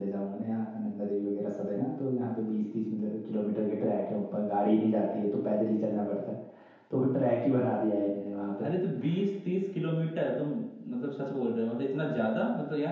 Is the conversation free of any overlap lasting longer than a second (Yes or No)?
Yes